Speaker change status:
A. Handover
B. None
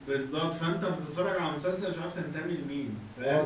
A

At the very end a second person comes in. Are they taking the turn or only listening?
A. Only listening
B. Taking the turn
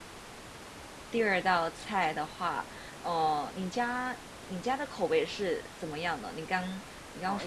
B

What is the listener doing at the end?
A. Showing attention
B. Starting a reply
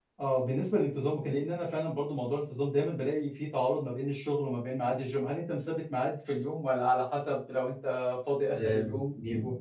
B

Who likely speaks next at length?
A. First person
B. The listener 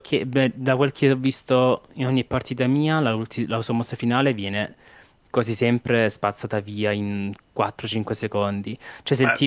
A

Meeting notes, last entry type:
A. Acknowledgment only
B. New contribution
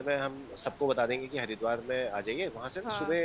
A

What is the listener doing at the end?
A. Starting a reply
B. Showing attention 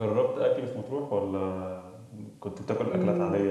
A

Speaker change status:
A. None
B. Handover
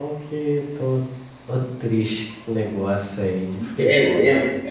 B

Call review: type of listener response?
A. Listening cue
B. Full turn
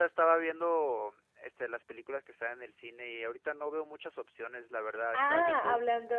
B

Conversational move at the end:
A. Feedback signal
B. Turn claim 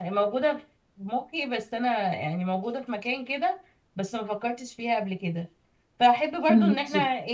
A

